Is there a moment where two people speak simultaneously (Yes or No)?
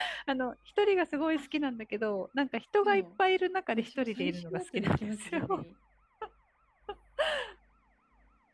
Yes